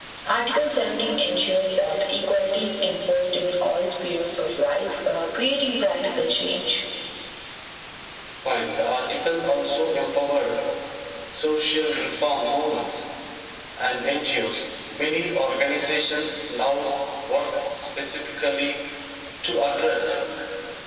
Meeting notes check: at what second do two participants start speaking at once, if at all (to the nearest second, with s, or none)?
none